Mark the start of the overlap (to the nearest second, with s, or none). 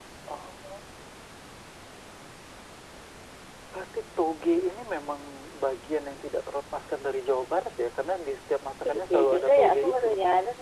9 s